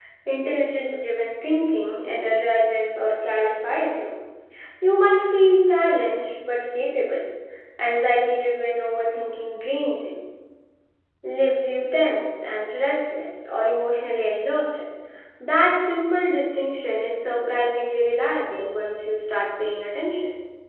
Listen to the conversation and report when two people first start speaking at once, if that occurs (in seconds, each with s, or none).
none